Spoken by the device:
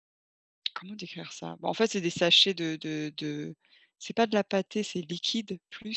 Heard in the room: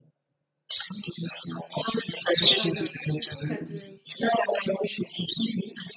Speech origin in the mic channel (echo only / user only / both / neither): both